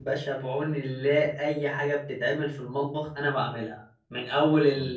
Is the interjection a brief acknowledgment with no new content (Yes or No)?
Yes